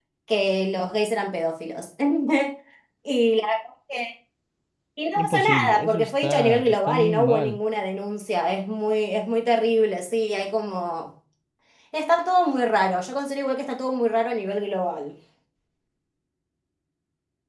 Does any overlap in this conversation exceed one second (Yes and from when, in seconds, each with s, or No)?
Yes, from 5.2 s